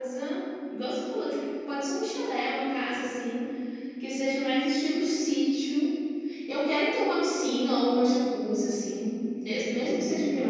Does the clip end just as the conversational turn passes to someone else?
No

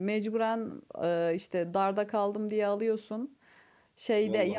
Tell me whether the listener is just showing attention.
Yes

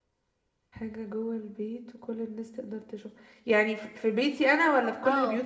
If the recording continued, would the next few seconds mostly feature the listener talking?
Yes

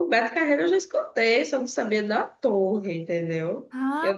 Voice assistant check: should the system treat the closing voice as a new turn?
Yes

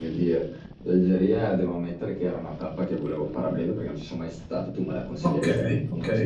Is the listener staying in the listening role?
No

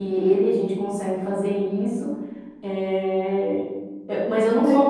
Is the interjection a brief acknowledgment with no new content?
Yes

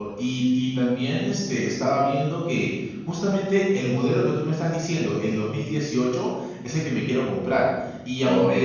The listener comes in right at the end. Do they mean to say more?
No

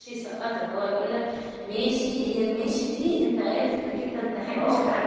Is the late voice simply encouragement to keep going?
No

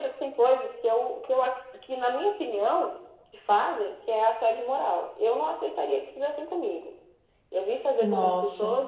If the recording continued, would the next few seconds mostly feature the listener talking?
No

